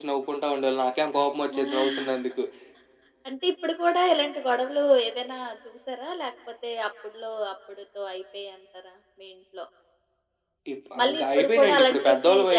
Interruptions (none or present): present